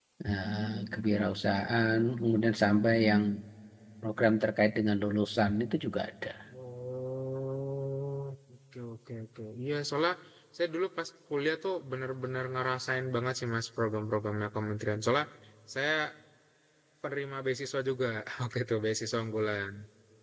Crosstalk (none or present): none